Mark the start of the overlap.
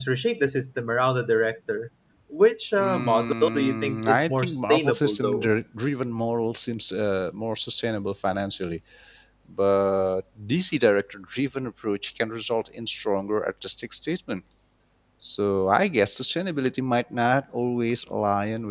2.8 s

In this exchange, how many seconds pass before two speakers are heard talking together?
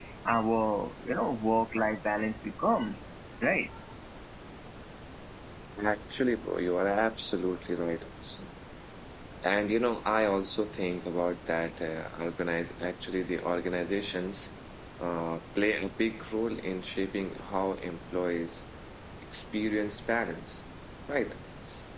none

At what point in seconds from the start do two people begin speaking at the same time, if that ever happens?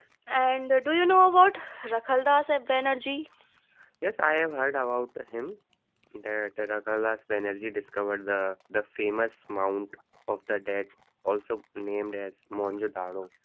none

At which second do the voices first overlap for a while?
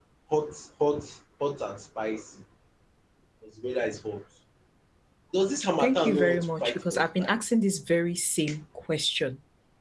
5.8 s

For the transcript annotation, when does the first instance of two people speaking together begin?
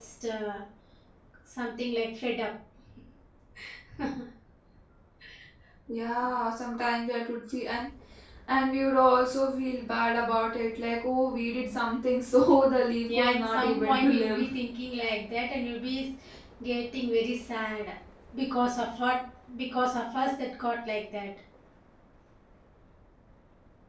13.1 s

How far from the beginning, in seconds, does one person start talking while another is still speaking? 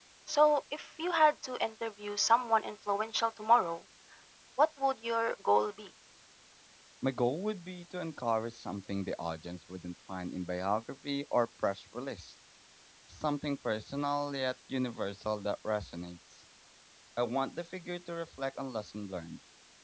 none

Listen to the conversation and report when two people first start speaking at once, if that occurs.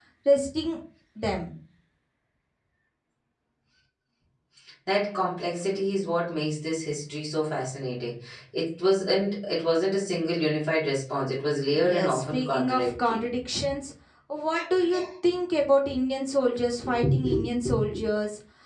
11.7 s

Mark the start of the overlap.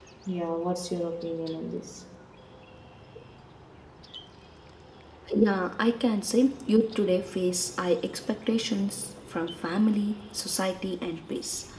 none

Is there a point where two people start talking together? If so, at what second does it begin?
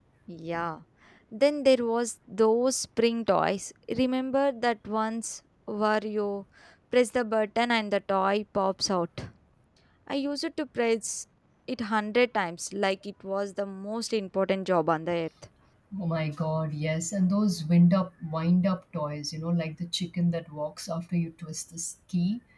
none

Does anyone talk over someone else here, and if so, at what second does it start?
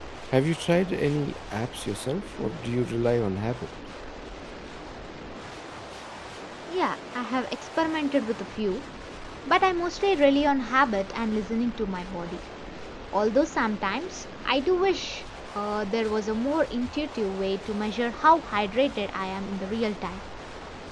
none

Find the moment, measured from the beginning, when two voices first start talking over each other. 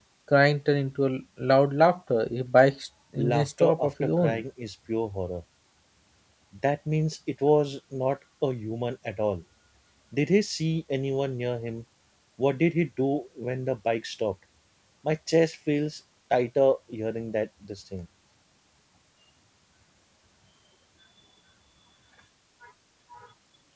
3.2 s

